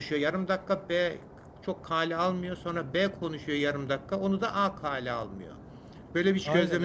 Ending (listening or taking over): taking over